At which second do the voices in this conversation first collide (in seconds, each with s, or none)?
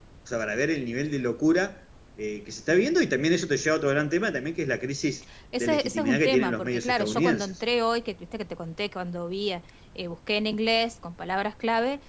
5.5 s